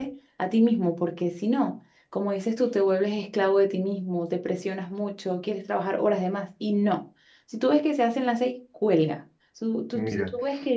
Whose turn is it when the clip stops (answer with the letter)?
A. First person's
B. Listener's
A